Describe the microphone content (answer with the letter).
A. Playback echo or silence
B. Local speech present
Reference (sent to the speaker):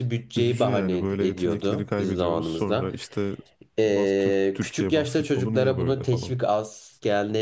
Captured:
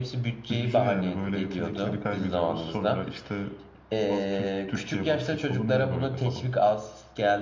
A